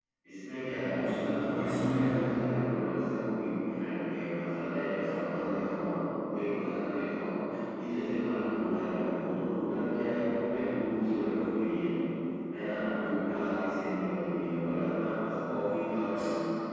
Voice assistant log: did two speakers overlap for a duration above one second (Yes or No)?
Yes